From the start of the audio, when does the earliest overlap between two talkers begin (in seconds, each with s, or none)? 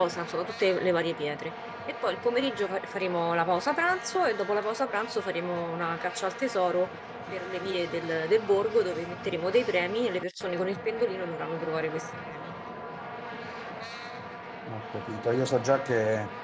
none